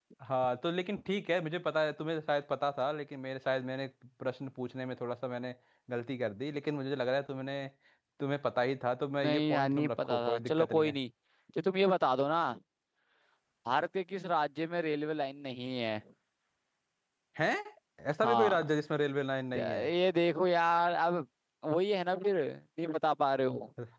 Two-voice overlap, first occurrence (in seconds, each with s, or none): 9.2 s